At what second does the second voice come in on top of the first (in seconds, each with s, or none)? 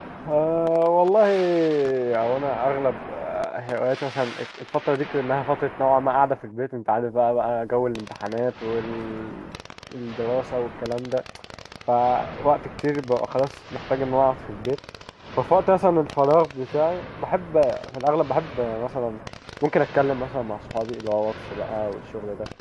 none